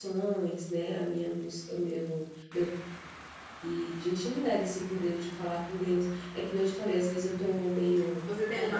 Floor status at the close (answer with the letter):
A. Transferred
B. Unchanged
A